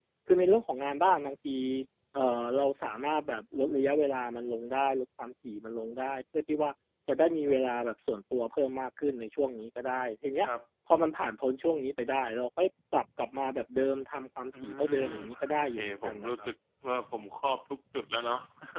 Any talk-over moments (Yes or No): Yes